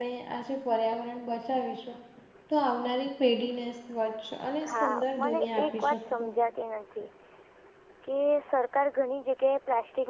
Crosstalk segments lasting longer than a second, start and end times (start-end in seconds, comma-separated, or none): 4.7-6.3